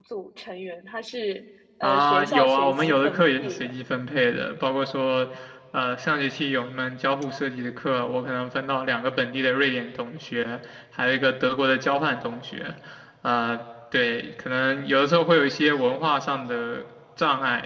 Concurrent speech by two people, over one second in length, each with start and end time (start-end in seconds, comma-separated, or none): 1.8-3.7